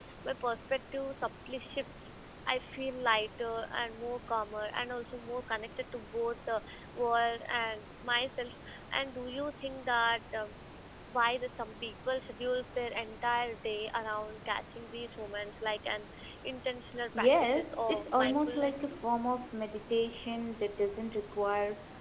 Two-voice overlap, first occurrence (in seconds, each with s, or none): 17.1 s